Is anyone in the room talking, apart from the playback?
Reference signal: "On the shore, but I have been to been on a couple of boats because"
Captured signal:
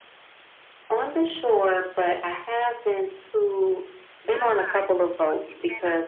Yes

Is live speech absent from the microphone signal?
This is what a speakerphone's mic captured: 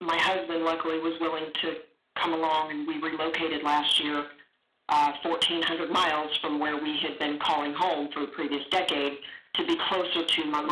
Yes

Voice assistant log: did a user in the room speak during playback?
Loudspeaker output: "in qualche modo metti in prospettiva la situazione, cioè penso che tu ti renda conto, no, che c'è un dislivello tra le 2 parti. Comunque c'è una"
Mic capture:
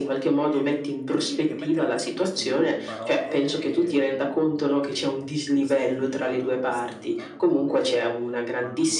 Yes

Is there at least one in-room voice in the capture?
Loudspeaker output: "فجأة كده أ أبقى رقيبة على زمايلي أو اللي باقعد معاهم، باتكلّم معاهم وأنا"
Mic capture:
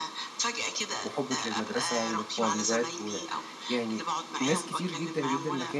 Yes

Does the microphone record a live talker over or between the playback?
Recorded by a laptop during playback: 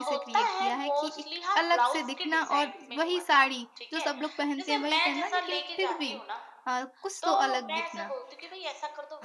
Yes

